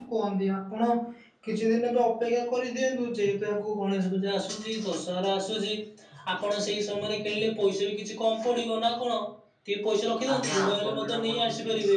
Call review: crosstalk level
present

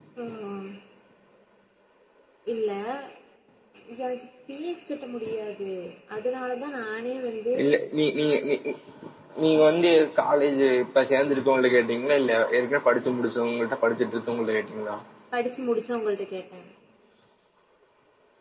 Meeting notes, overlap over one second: none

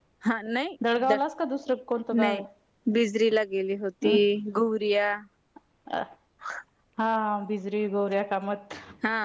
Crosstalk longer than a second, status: none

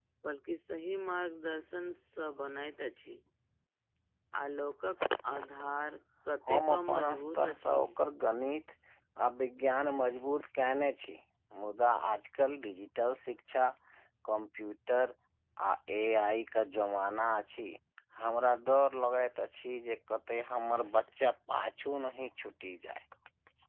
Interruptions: present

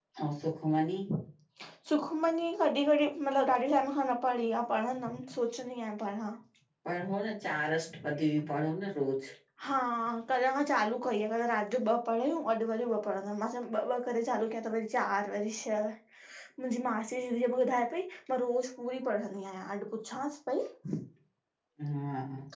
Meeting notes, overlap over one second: none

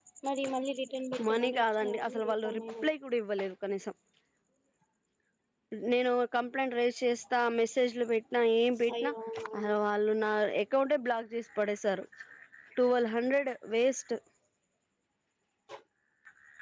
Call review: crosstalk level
present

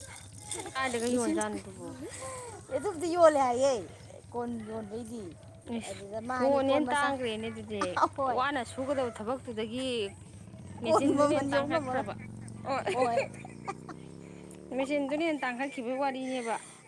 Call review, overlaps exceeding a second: present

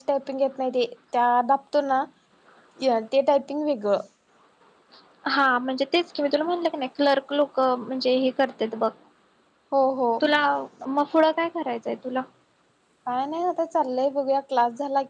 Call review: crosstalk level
none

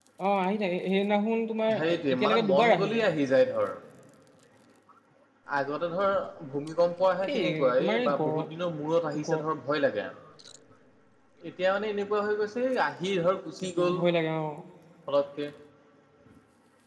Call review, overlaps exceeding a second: present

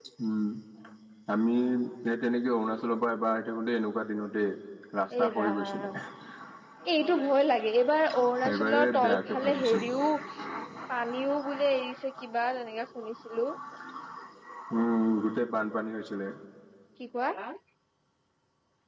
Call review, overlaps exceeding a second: present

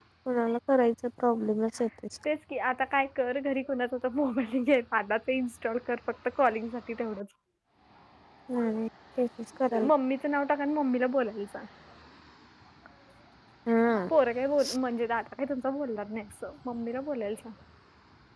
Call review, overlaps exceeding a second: none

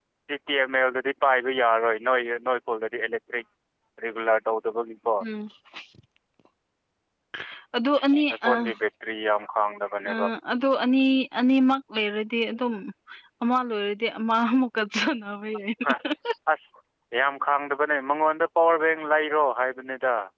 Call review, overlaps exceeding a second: none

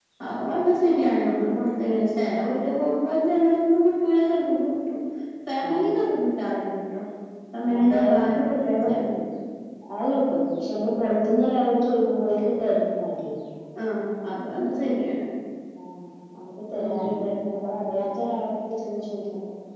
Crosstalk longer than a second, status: present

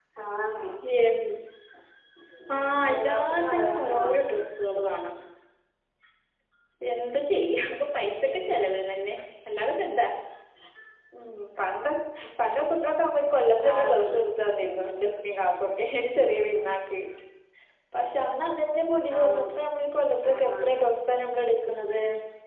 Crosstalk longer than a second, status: present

